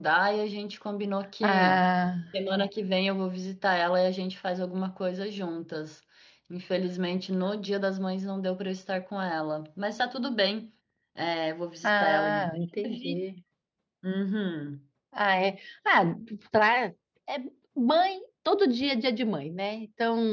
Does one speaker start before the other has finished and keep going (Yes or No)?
Yes